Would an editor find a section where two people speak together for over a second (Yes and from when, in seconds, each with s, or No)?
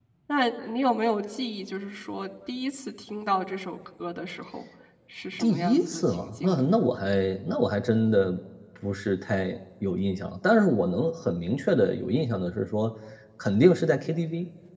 Yes, from 5.4 s